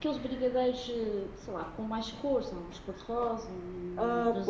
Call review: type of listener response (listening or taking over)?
taking over